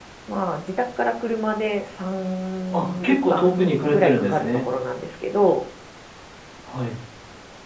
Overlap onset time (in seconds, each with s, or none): 2.7 s